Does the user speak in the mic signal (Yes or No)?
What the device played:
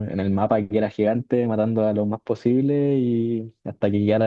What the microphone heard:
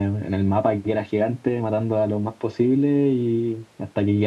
No